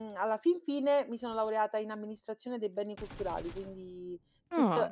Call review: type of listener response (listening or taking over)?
listening